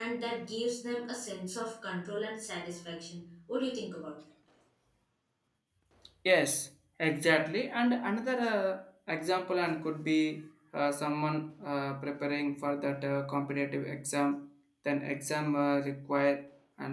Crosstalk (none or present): none